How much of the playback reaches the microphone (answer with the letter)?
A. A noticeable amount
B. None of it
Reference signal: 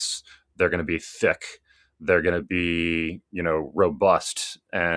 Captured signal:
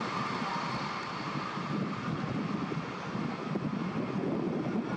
B